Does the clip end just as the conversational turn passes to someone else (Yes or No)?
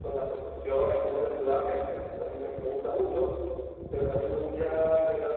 No